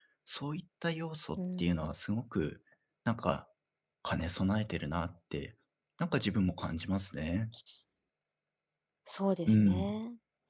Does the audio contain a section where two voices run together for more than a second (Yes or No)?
No